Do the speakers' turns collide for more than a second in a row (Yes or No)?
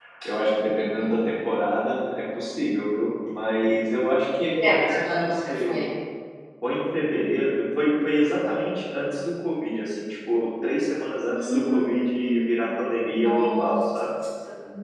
Yes